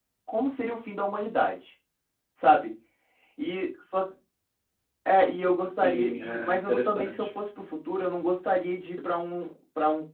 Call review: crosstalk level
present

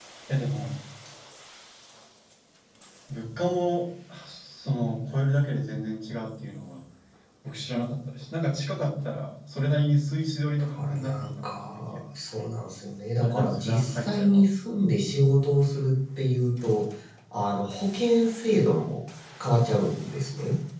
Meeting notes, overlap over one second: present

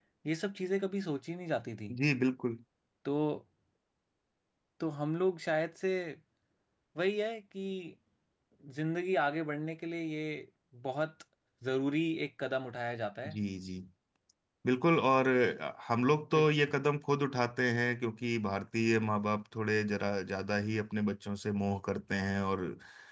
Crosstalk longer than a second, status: none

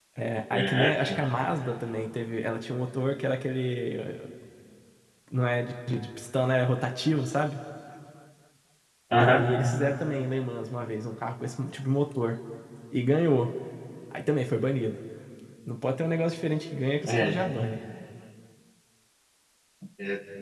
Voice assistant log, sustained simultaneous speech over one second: none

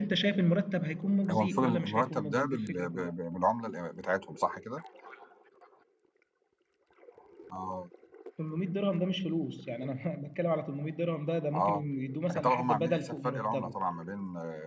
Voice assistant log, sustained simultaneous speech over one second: present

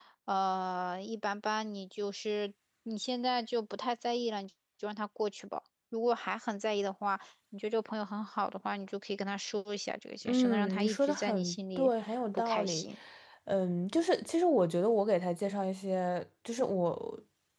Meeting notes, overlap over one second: present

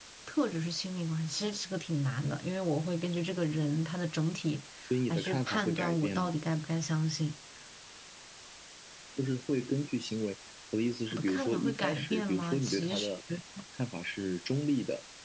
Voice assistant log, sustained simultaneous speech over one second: present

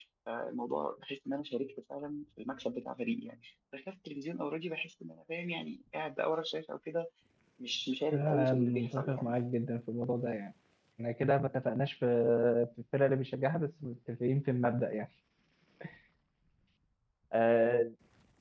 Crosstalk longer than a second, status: present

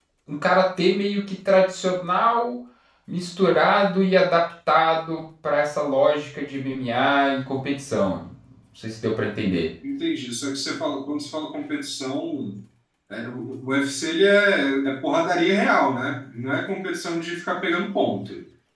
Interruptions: none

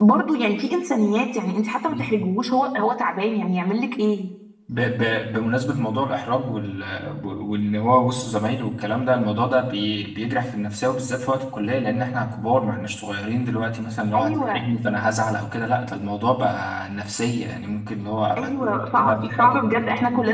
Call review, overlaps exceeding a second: present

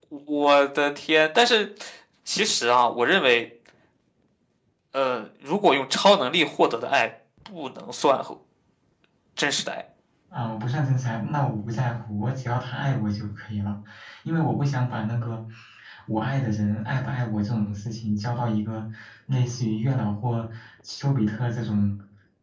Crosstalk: none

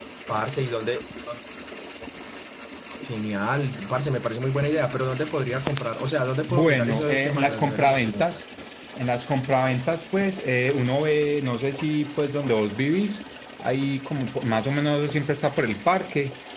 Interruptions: present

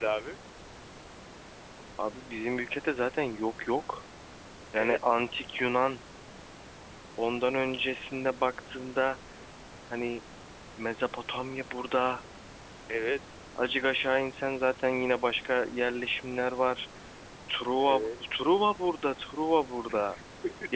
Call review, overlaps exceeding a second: none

